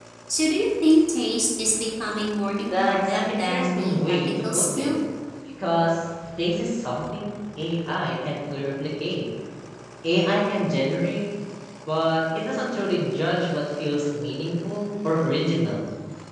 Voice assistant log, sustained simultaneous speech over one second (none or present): present